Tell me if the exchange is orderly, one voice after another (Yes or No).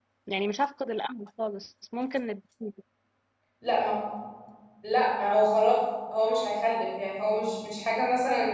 Yes